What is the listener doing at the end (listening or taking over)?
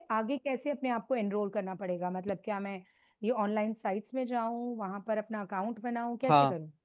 taking over